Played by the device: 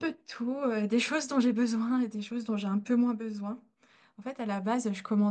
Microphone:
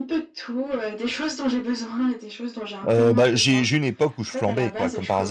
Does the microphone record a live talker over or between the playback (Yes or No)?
Yes